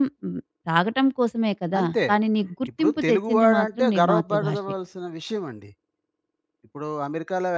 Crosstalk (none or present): present